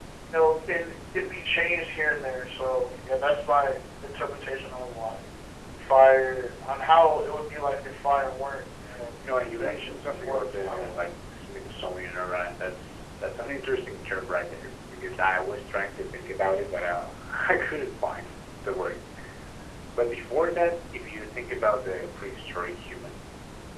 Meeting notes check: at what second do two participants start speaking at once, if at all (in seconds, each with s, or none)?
9.2 s